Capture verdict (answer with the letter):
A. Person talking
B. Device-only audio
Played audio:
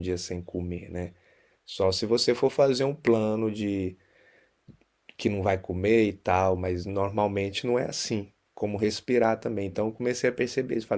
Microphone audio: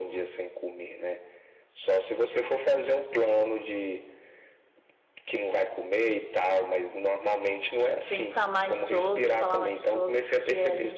A